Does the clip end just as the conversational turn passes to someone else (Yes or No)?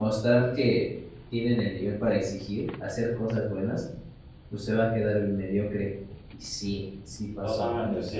Yes